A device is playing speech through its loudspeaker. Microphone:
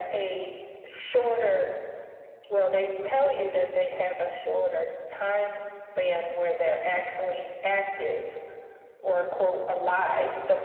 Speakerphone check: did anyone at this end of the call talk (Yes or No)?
No